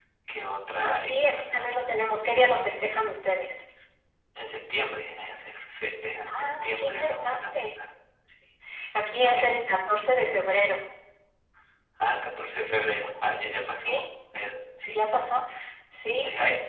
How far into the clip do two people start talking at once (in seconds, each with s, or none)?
0.8 s